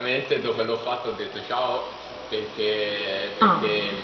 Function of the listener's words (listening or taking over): listening